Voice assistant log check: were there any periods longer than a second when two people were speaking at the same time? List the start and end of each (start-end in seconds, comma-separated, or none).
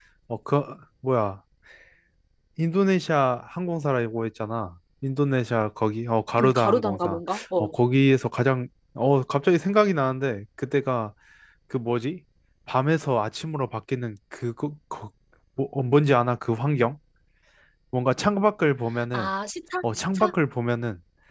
6.4-7.7